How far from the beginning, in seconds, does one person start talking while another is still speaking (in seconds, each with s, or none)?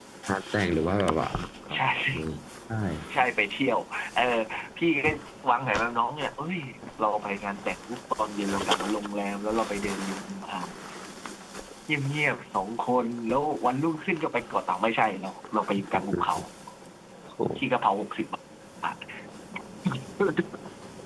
none